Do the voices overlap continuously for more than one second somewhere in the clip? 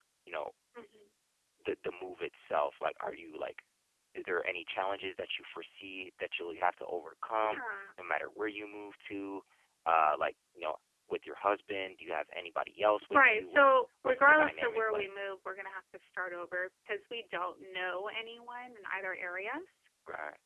Yes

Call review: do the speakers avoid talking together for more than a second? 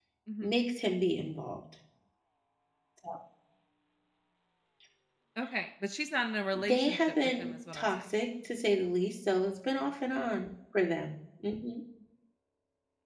No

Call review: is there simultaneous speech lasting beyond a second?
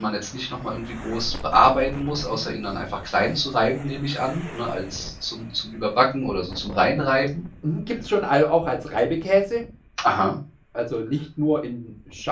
No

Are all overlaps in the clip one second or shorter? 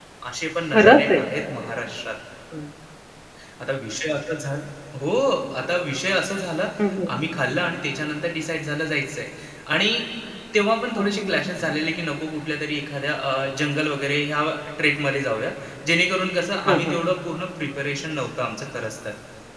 Yes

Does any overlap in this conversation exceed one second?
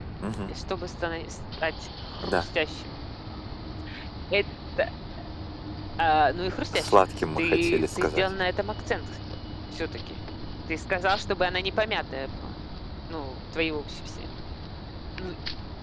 Yes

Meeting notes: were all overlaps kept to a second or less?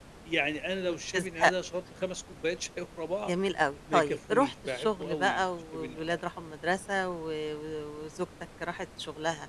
No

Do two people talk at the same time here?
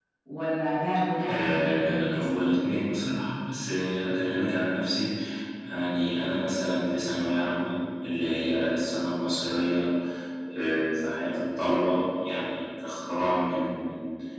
Yes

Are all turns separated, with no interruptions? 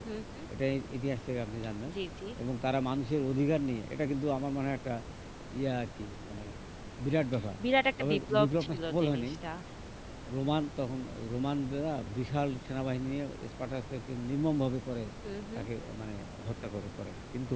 No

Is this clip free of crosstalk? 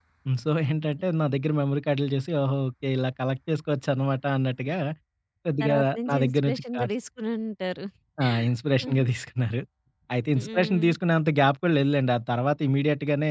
No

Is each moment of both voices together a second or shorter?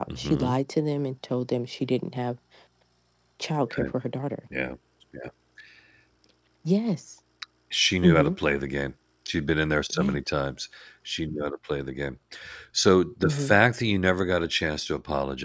Yes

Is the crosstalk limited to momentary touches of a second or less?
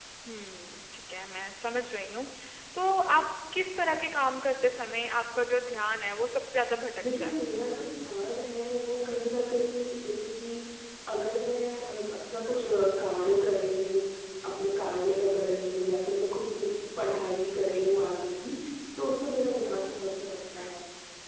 Yes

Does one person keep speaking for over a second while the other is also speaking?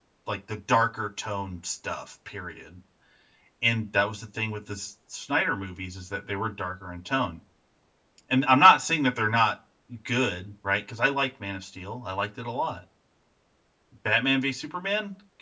No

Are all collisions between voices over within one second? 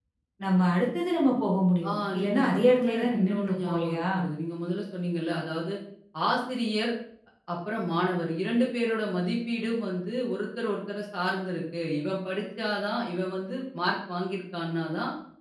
No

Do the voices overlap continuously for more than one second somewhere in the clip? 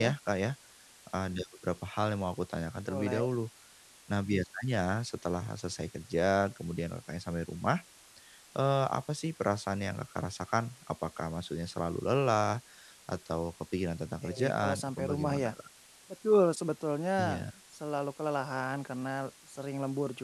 Yes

